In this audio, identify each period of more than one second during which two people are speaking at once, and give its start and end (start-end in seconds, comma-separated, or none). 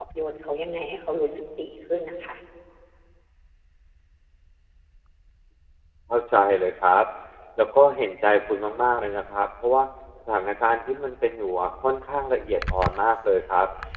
none